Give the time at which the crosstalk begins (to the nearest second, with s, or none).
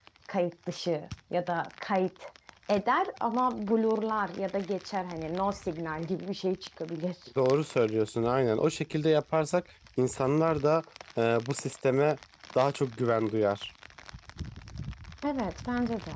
none